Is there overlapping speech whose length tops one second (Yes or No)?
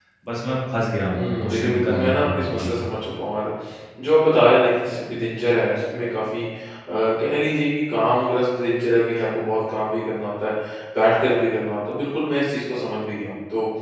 Yes